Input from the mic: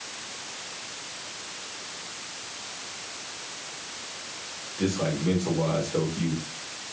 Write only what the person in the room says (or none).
just, like, mental-wise help you